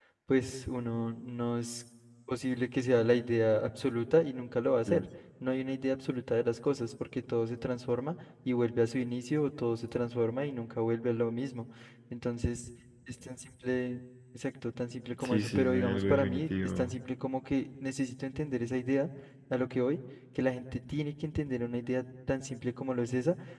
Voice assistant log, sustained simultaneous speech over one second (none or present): present